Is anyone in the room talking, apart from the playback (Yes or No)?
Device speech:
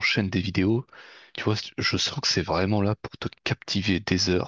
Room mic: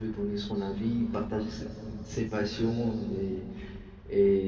Yes